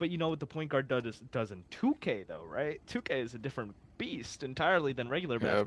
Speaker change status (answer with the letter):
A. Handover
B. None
A